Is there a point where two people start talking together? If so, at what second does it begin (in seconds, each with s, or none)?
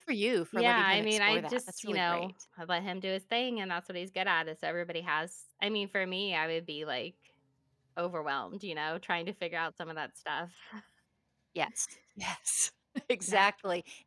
0.6 s